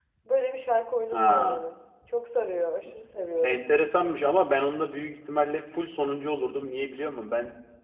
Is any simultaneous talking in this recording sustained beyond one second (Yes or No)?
No